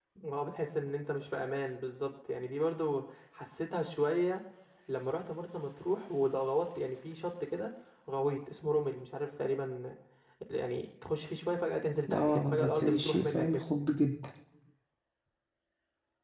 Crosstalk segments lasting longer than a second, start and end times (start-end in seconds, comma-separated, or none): 12.1-13.7